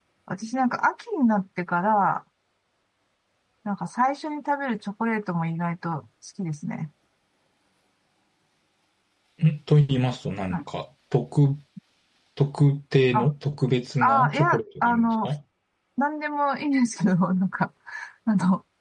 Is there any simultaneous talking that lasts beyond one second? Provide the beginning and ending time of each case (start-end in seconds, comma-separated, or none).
14.0-15.3